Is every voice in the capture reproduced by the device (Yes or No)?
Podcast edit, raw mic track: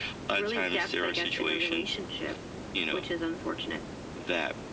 Yes